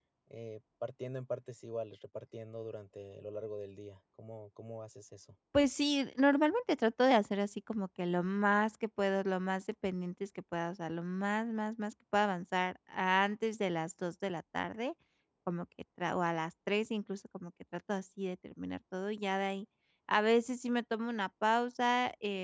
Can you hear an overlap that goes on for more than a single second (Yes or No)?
No